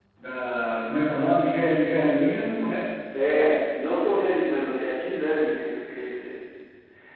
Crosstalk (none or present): none